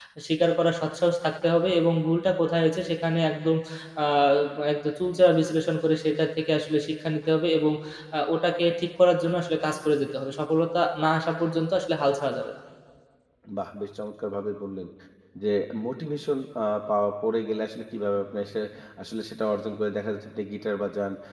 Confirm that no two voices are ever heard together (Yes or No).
Yes